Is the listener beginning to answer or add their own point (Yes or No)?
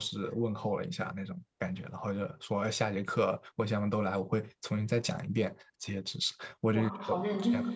Yes